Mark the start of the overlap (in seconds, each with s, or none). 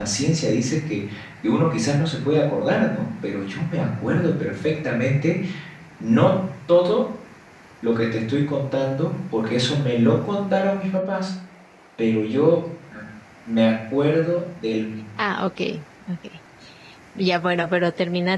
none